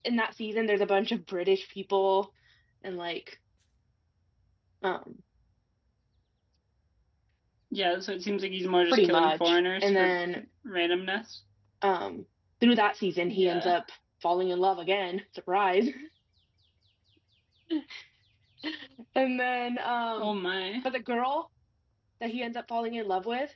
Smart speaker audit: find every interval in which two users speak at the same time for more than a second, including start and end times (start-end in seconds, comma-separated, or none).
8.9-10.2